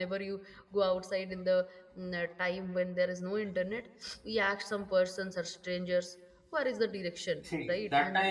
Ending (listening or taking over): taking over